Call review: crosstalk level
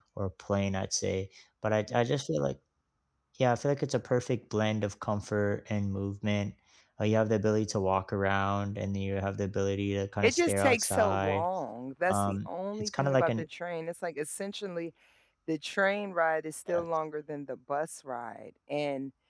present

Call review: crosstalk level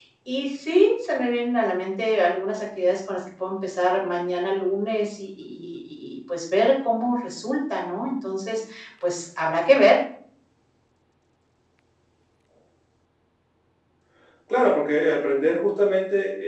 none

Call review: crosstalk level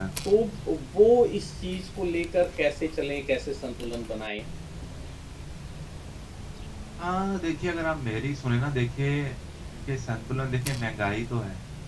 none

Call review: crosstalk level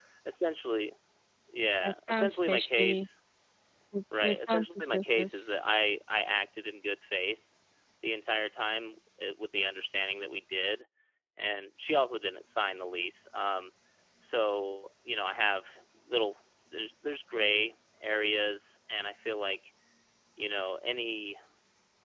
present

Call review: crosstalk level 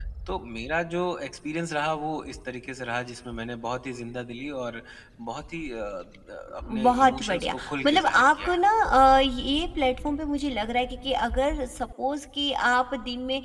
present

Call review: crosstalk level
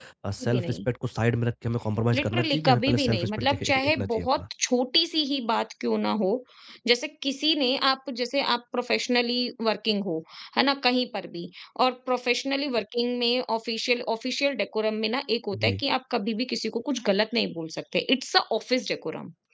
present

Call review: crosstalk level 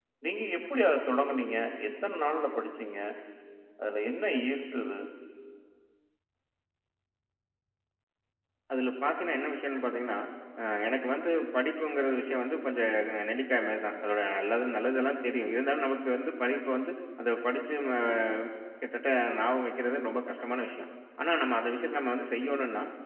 none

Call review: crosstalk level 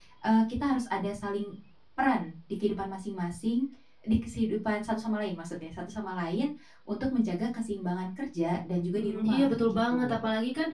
present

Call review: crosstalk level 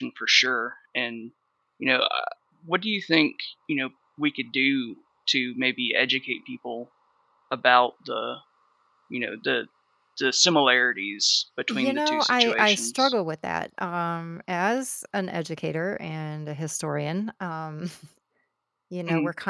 present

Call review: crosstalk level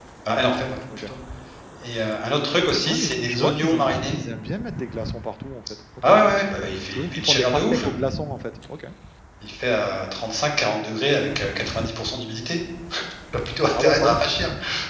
present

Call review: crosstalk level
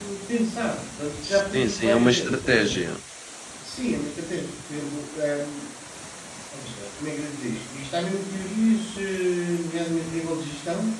present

